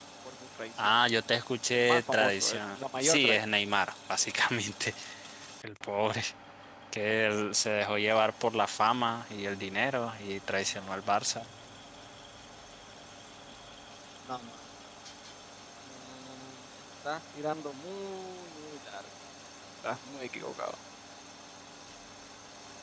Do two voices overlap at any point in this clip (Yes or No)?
Yes